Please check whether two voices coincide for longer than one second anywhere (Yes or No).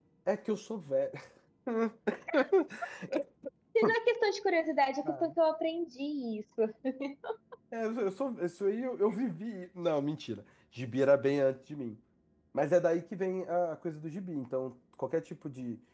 No